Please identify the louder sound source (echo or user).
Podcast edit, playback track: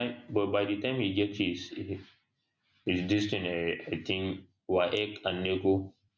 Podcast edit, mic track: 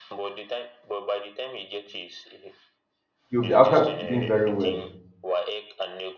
user